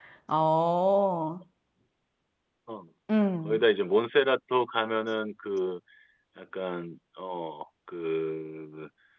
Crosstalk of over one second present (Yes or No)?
No